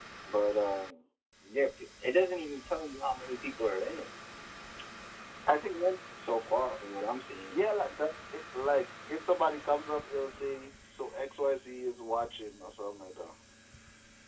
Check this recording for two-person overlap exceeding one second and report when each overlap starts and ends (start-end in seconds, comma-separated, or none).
none